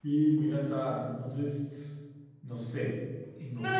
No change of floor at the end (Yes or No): No